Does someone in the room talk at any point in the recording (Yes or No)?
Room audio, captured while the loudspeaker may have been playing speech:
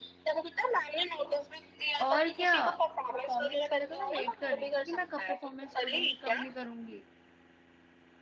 Yes